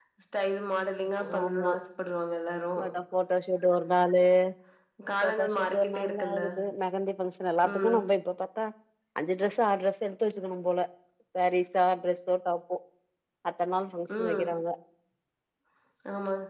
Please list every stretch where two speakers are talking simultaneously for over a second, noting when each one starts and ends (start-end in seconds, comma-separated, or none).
5.2-6.4